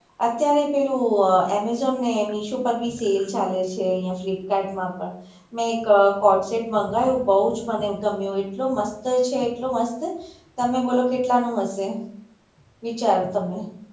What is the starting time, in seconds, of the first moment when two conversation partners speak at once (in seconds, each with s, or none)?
none